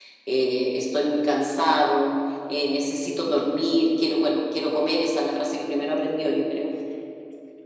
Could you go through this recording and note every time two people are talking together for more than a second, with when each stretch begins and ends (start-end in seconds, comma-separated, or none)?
none